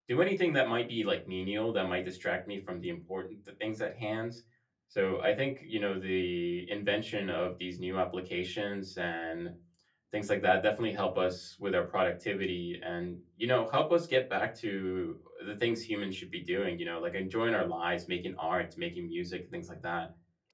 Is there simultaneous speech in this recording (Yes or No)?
No